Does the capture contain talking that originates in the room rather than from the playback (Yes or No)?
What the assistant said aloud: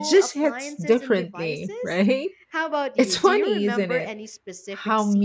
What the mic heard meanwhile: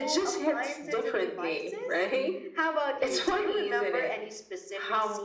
No